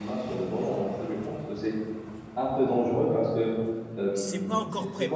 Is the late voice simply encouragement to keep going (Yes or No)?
No